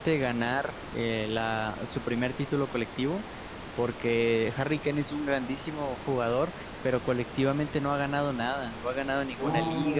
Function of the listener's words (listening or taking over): listening